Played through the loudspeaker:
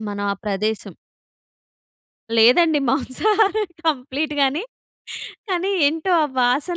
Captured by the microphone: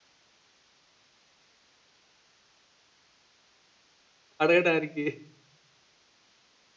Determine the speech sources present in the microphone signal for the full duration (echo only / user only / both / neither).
user only